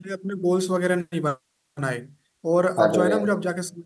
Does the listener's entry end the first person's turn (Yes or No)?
No